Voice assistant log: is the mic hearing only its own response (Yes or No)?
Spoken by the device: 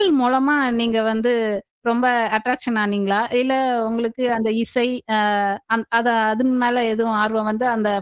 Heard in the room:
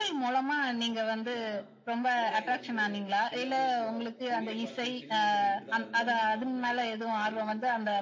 No